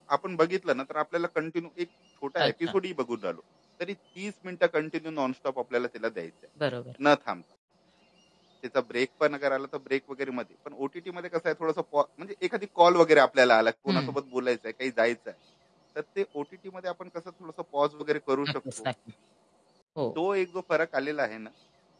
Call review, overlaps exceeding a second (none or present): none